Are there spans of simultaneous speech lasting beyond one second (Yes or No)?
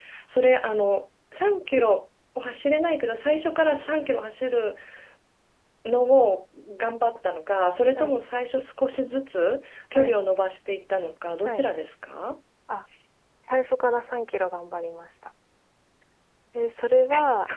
No